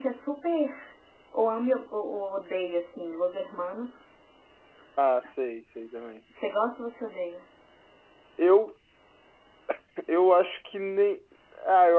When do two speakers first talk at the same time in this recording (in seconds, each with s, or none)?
none